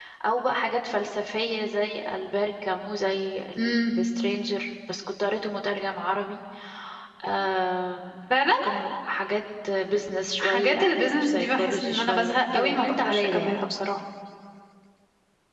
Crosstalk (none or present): present